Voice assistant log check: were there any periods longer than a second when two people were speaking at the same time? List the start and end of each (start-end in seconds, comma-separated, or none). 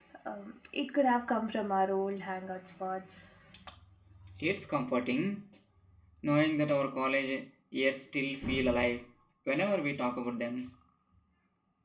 none